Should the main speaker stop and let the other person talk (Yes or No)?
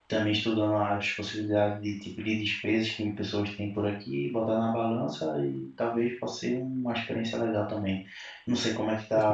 Yes